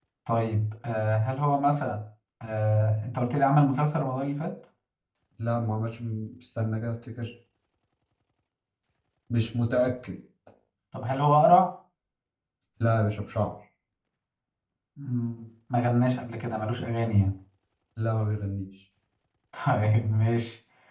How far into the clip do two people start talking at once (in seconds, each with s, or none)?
none